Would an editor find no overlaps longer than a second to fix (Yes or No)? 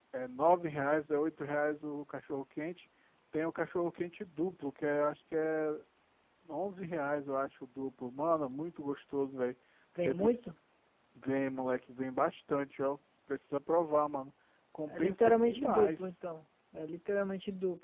No